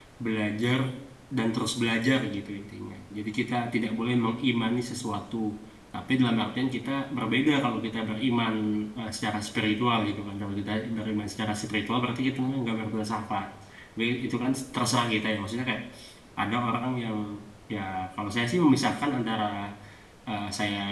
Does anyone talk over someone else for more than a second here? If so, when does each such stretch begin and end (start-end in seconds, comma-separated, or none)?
none